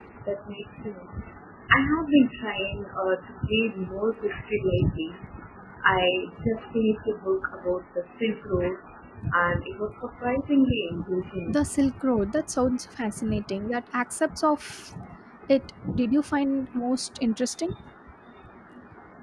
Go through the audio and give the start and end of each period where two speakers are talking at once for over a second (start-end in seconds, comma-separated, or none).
none